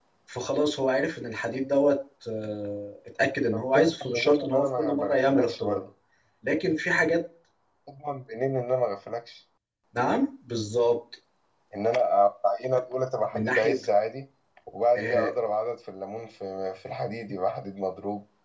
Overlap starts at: 3.5 s

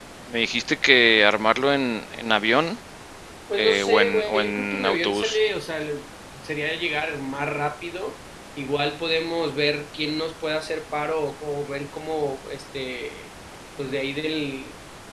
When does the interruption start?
3.5 s

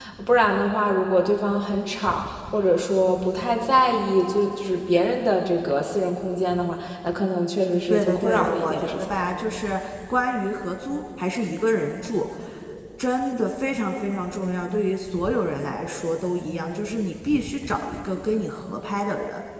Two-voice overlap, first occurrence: 7.9 s

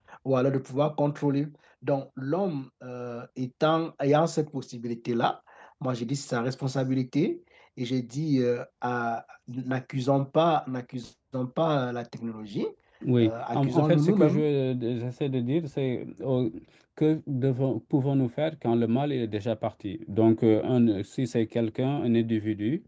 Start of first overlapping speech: 13.2 s

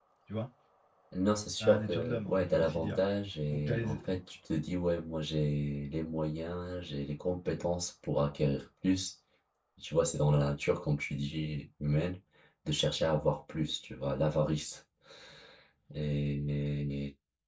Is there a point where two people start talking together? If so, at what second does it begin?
1.6 s

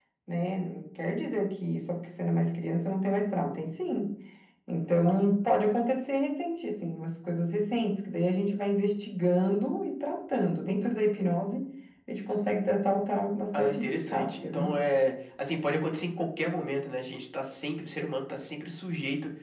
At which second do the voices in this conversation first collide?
13.5 s

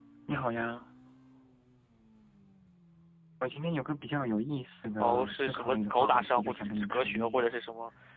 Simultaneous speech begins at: 5.0 s

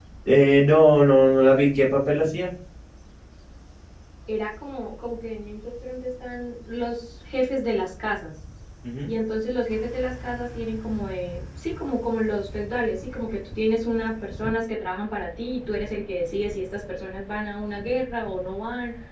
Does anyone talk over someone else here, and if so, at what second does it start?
none

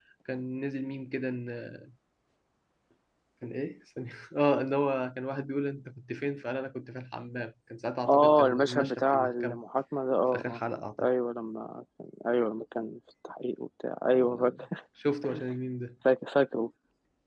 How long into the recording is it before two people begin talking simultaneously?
8.1 s

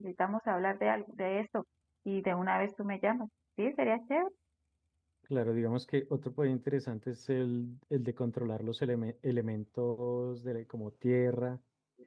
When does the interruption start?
none

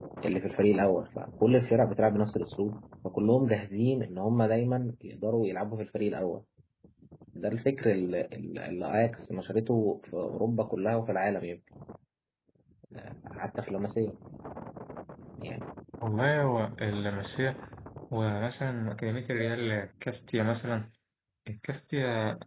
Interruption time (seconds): none

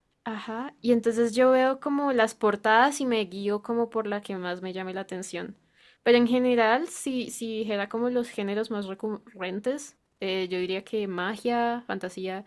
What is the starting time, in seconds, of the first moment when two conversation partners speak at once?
none

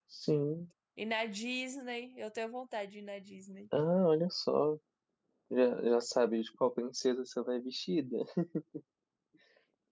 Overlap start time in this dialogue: none

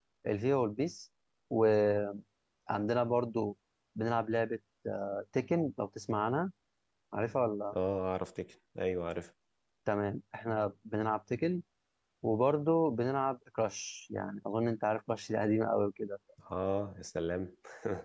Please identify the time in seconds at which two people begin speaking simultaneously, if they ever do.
none

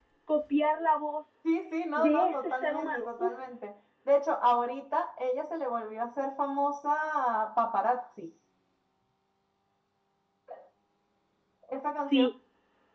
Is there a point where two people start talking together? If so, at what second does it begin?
2.0 s

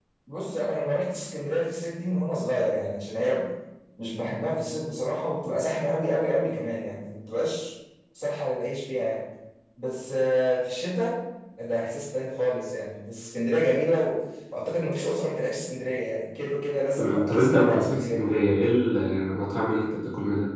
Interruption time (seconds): 17.0 s

